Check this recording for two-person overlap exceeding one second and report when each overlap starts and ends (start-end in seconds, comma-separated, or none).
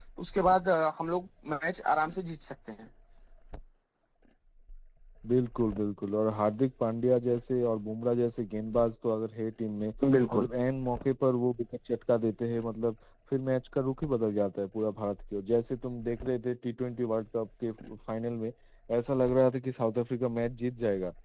none